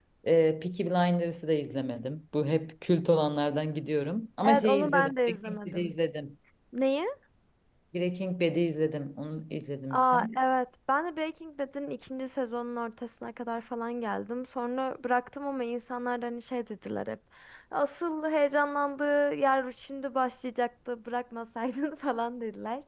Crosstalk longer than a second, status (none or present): present